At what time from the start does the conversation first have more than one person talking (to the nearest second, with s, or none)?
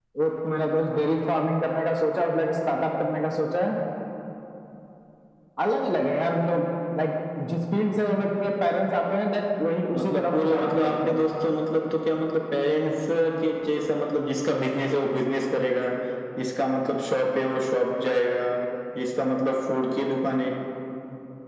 10 s